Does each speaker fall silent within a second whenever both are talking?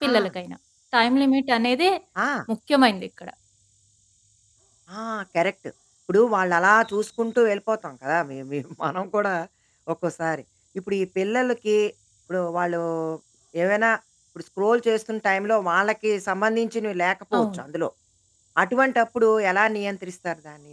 Yes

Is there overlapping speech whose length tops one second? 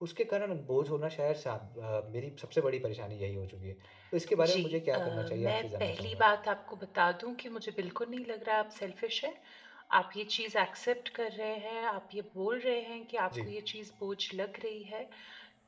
Yes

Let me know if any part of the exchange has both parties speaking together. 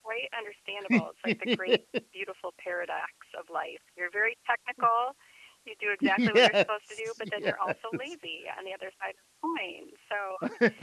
Yes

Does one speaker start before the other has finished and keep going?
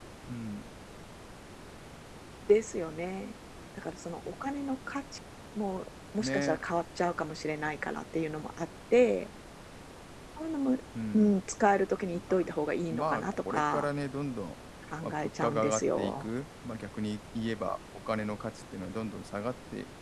Yes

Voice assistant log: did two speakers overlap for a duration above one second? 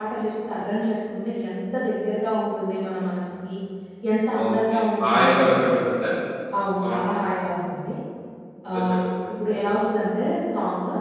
Yes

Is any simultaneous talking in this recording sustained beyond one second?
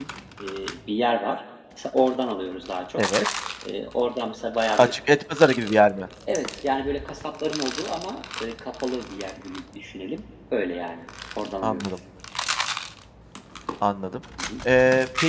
No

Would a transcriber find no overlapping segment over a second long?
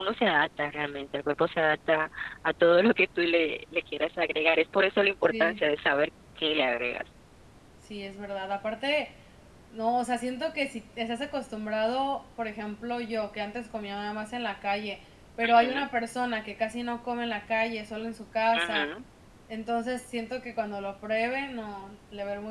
Yes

